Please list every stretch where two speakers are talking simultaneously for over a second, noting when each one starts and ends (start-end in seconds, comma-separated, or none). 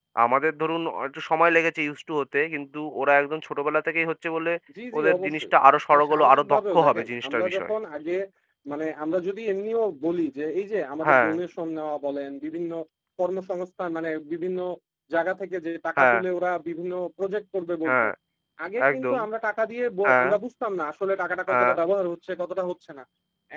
5.9-7.7